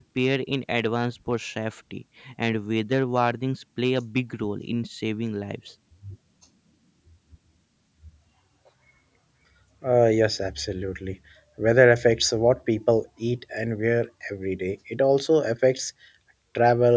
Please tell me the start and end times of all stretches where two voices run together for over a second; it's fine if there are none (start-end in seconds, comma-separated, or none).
none